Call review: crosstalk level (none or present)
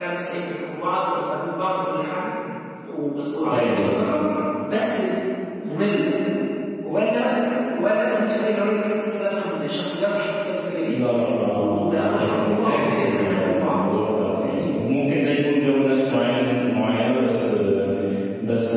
present